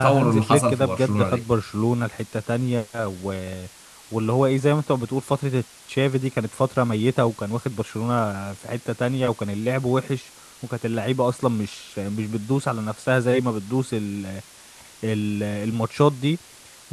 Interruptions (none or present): present